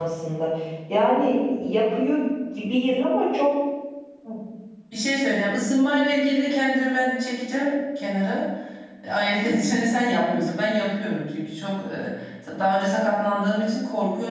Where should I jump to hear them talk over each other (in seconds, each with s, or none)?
none